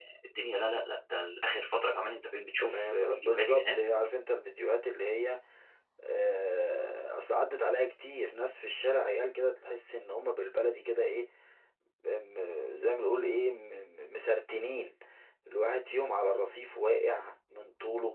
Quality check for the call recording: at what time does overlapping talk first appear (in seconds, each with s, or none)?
2.6 s